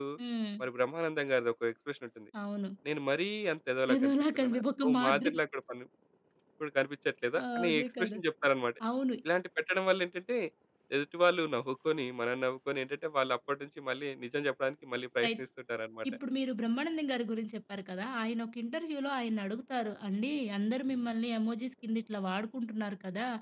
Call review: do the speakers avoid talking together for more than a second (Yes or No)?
No